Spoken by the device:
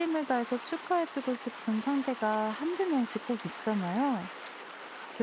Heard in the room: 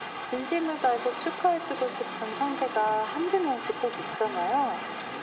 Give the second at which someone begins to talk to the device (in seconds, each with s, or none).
none